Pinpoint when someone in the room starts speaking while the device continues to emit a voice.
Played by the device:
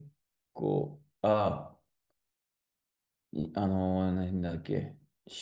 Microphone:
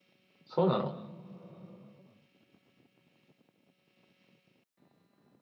0.5 s

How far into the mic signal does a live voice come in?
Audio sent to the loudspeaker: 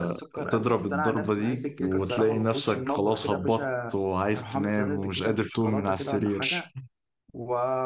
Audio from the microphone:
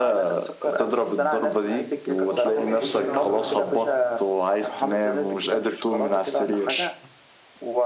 2.3 s

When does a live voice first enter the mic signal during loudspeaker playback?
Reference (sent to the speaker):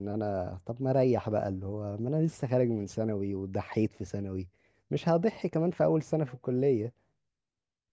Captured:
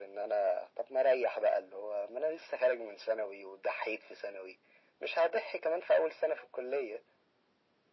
none

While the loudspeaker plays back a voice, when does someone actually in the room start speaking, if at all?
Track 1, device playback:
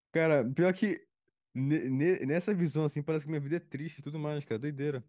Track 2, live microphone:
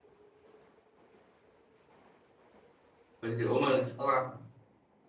3.2 s

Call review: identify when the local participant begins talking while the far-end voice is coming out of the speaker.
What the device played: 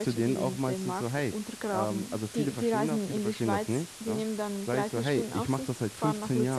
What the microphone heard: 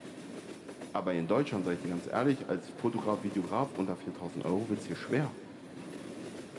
0.9 s

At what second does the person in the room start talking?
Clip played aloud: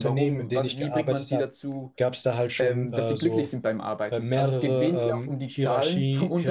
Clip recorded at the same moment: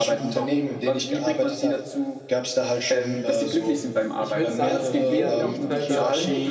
4.2 s

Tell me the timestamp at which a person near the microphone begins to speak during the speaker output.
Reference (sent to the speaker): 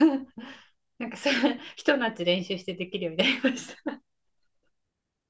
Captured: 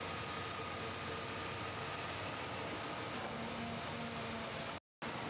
none

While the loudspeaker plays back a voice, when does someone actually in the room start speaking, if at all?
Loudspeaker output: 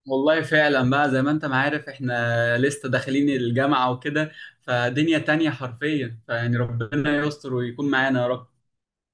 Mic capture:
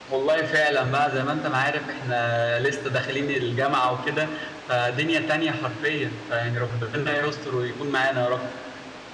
none

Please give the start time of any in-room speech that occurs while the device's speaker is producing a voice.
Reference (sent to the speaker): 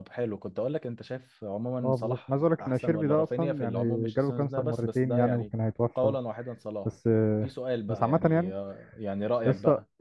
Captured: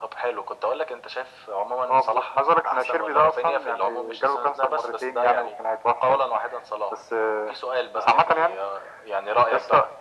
none

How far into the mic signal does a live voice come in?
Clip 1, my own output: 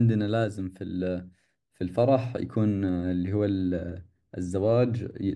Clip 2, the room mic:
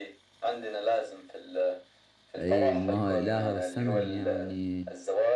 2.4 s

